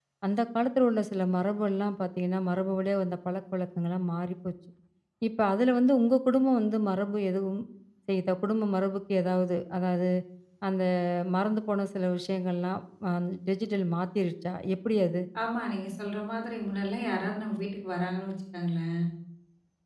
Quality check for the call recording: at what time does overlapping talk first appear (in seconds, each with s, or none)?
none